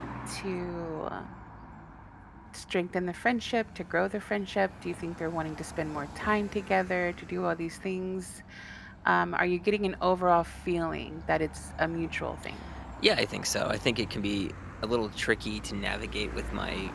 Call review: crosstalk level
none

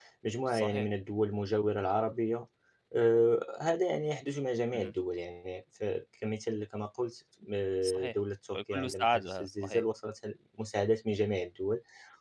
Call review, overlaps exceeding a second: present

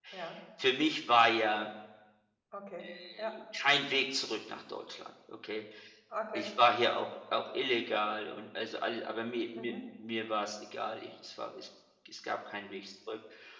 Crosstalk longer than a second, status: none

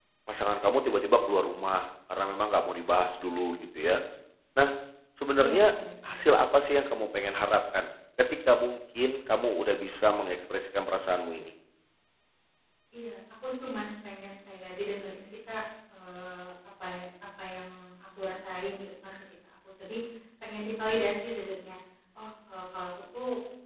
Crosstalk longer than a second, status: none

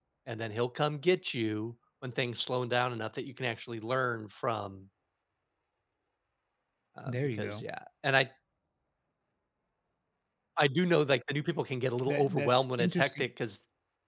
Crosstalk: present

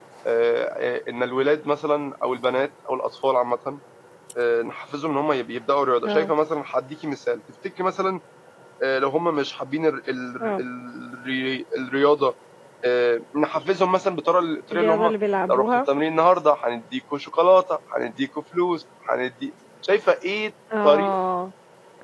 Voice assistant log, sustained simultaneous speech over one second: none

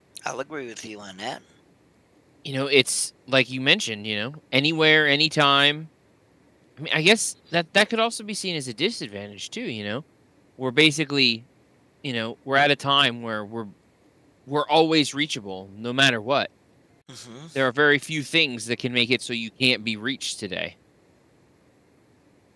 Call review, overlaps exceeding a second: none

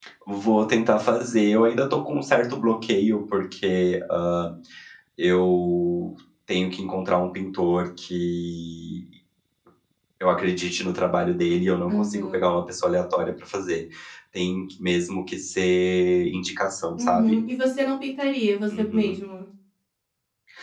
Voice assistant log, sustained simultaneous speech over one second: none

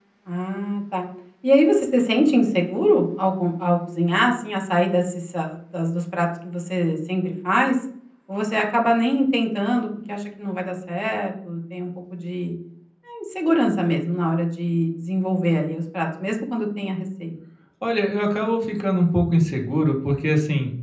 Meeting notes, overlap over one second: none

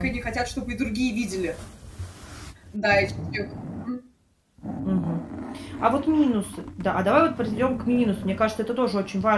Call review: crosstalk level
none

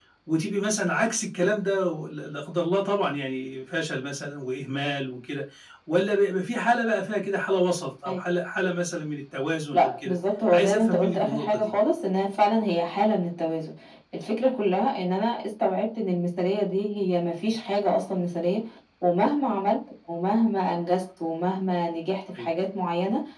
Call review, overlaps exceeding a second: present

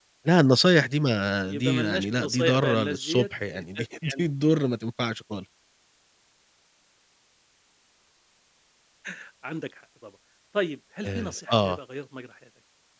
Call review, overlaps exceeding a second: present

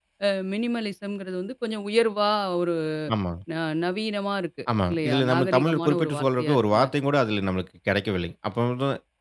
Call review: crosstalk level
present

